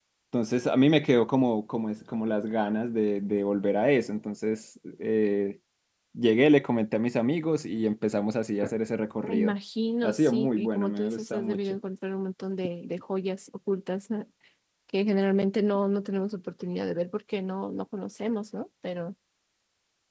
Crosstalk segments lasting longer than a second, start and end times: 10.0-11.8

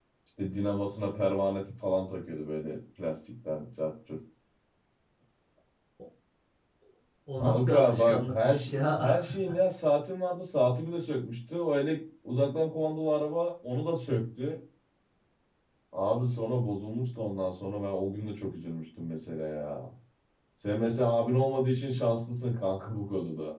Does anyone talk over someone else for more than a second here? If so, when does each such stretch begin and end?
7.4-9.2

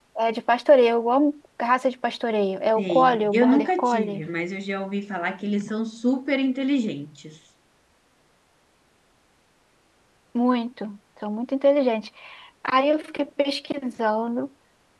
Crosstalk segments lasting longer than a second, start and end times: 2.8-4.2

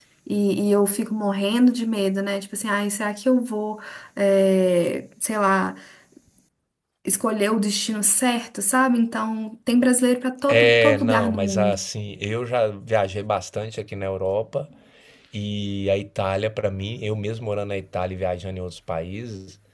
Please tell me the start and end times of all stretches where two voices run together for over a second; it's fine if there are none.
10.5-11.8

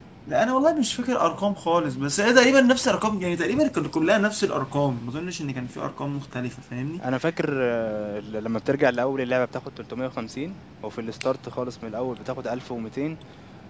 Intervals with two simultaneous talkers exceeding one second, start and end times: none

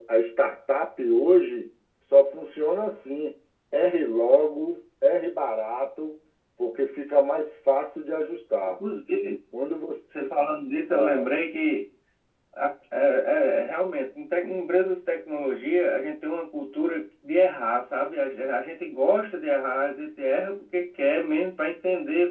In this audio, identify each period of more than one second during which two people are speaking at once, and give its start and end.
none

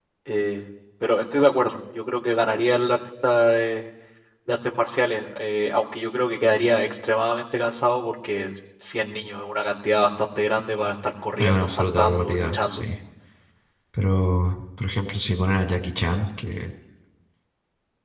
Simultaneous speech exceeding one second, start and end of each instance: 11.4-12.8

